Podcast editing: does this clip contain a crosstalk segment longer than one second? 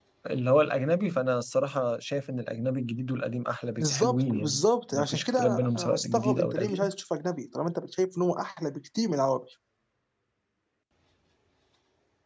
Yes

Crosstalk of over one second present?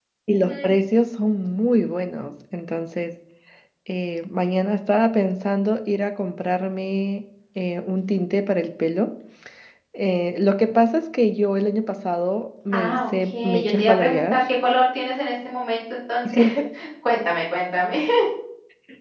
Yes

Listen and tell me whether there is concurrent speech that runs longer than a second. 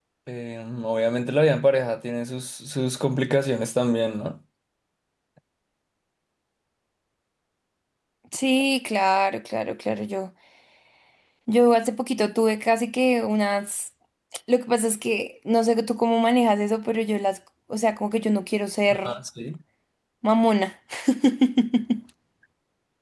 No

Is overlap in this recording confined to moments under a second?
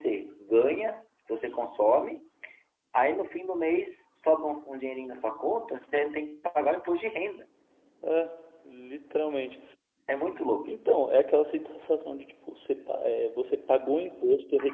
Yes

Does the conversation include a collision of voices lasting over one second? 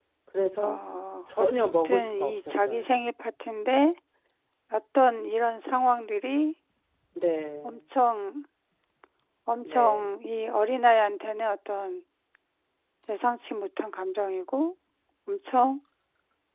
Yes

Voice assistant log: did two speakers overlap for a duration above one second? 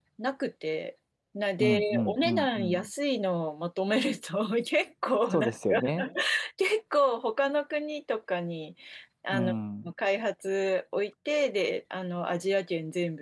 Yes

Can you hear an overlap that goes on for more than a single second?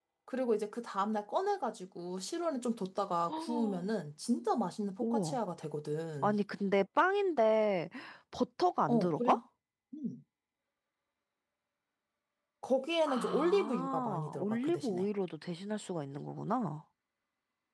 Yes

